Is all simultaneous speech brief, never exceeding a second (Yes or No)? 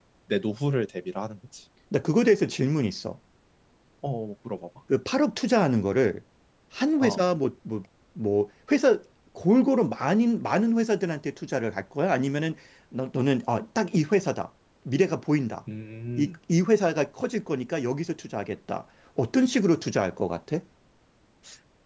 Yes